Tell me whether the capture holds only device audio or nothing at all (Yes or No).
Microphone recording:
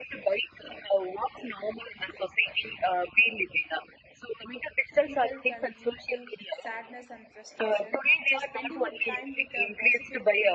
No